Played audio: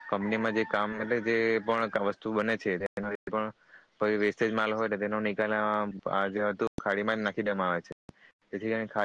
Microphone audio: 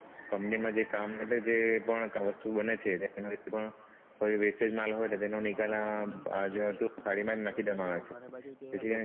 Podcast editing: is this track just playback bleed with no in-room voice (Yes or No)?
No